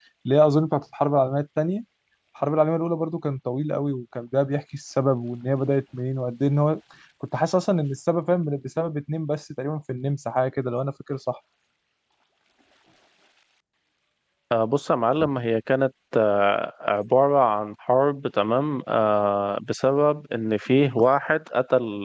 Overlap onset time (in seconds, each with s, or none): none